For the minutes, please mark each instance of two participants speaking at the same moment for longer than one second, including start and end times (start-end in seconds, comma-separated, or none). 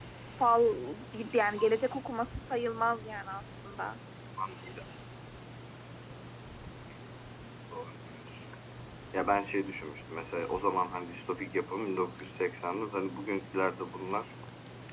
none